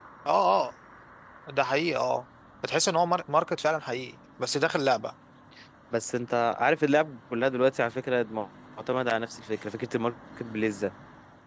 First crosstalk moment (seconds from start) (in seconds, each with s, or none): none